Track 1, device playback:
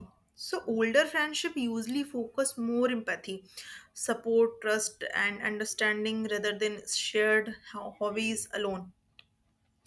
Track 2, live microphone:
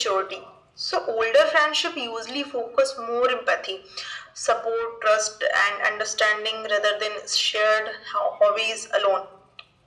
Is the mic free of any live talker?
Yes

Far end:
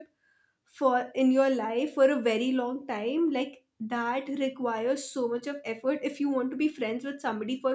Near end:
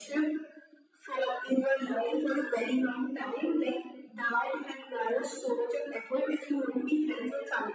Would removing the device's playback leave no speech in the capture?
Yes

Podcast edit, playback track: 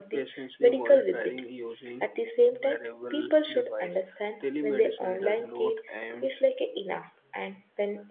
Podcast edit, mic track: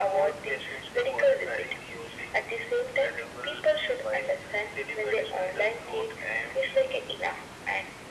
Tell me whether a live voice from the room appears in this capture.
No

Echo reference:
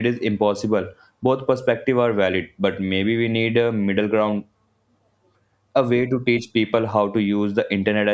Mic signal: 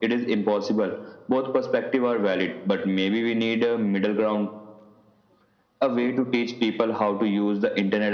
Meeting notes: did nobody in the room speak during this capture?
Yes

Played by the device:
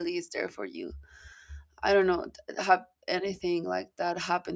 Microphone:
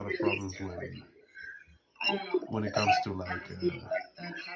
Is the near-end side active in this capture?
Yes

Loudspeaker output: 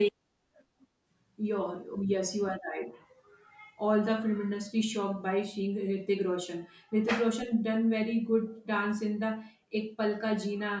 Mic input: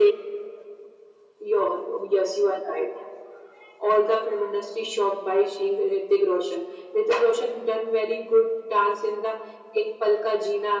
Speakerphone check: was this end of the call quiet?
Yes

